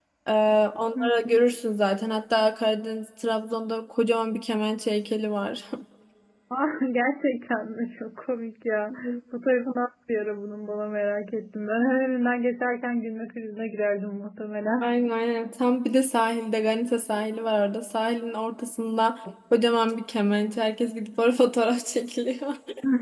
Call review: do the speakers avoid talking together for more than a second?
Yes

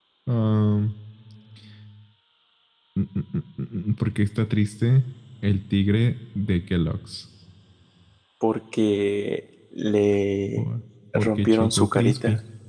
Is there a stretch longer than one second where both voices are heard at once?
Yes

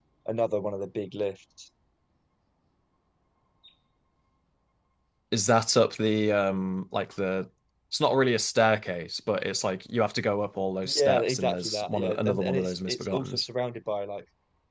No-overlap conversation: No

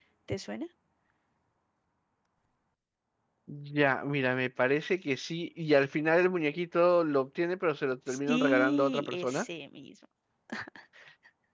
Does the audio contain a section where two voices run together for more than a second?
Yes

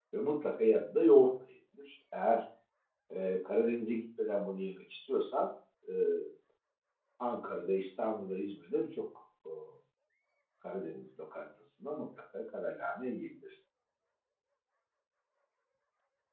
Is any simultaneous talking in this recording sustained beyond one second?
No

